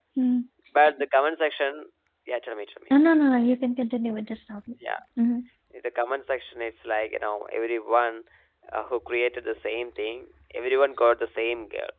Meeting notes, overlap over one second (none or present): none